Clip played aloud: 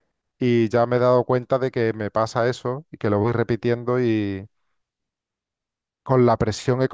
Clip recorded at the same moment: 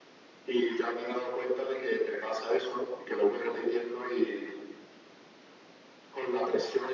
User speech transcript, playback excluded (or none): none